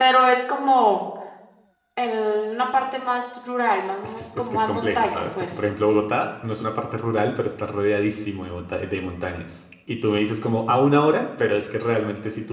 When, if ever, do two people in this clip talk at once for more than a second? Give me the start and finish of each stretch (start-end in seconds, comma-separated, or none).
4.0-5.5